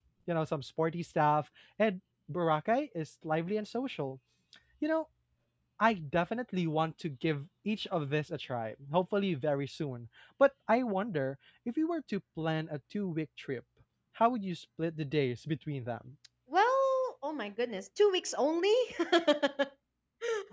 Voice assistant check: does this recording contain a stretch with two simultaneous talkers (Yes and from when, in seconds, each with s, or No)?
No